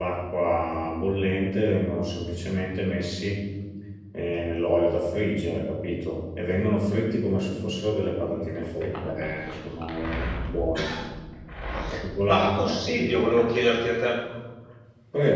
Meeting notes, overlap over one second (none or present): present